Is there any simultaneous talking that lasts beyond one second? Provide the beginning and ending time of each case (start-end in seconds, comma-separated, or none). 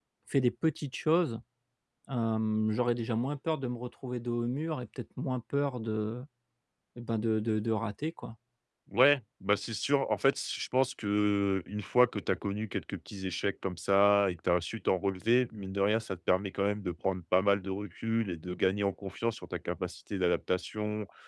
none